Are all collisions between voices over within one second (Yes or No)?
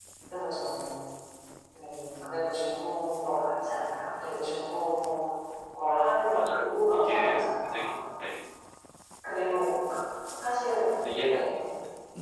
No